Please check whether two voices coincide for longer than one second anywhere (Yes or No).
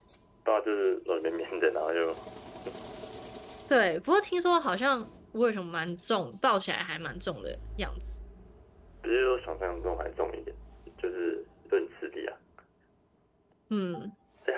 No